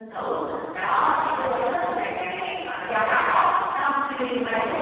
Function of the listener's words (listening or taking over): listening